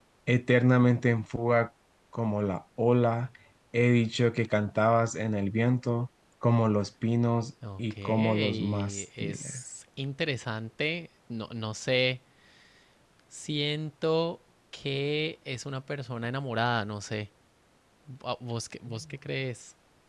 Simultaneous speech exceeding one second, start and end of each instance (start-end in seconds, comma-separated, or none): 7.8-9.5